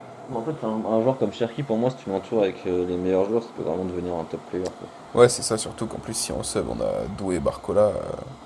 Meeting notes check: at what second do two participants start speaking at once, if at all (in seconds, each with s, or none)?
none